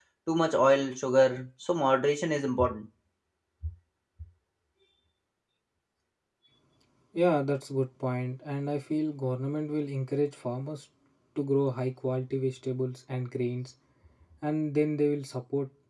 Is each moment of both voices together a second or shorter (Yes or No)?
Yes